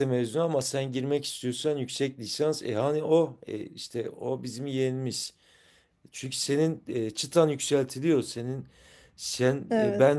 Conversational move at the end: listening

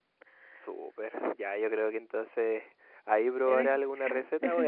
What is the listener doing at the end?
listening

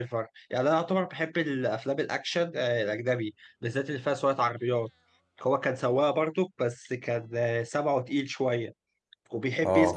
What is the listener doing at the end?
listening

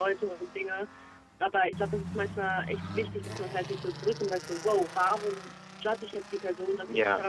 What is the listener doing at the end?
listening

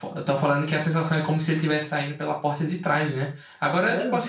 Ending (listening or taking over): listening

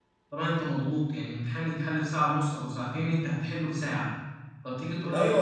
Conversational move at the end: taking over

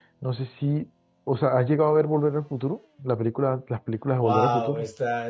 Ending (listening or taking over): taking over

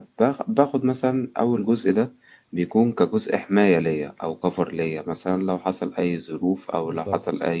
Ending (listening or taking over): listening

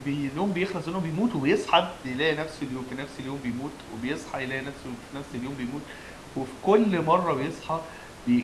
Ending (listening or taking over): listening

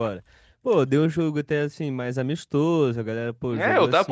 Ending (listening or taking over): taking over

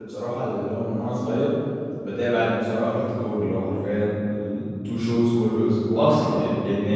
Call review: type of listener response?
listening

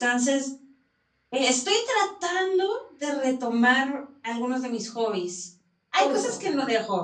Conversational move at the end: listening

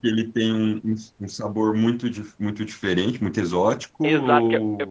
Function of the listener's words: taking over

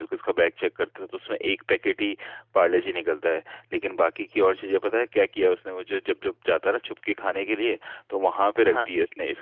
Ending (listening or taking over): listening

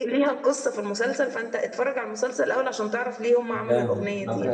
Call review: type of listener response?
taking over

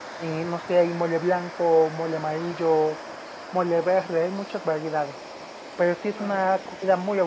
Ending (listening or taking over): listening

